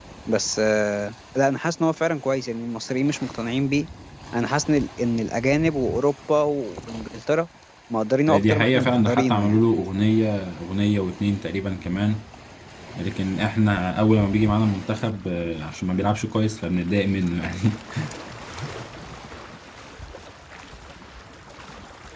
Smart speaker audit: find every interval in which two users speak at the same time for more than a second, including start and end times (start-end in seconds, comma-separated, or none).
8.3-9.6